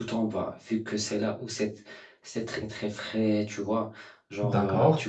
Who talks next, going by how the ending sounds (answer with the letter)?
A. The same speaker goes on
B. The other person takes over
A